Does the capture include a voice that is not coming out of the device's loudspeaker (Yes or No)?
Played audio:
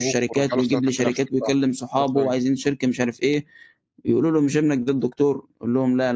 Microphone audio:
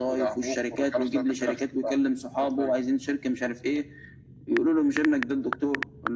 No